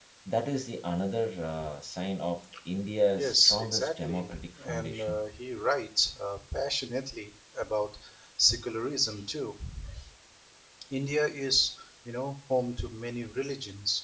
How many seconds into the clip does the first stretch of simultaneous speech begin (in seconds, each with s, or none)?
3.2 s